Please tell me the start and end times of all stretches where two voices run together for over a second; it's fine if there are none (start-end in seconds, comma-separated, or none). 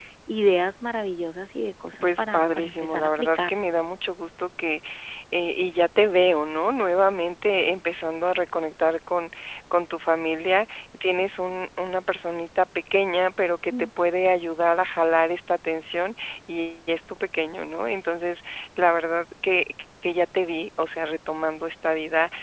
2.0-3.5